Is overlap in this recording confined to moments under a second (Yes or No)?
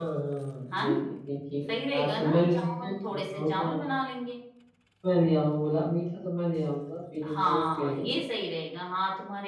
No